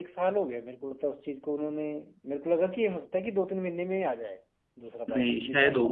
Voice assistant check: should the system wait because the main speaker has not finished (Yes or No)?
No